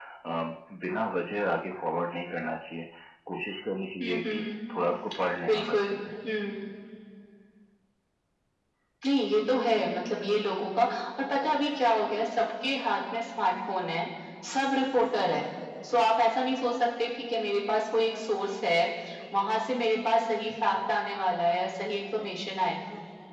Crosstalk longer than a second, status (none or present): none